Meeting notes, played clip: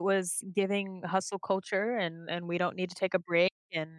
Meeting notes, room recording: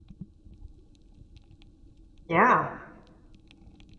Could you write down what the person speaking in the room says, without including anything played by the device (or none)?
Yeah,